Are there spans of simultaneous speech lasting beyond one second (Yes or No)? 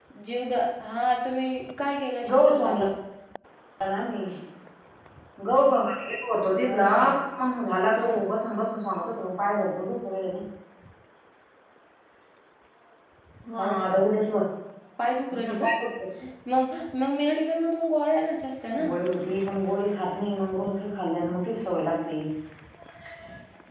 No